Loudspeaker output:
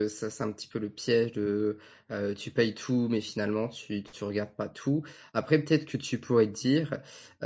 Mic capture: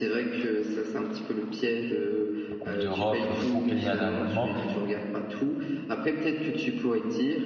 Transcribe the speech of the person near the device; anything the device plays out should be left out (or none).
coupe d'Europe, heu, faut payer un abonnement.